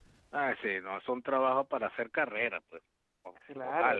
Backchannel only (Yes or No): No